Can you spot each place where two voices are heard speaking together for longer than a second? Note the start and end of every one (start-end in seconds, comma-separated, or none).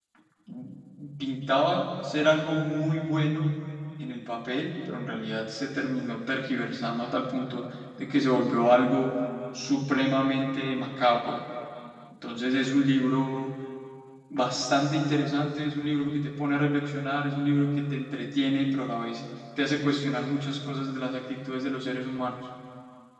none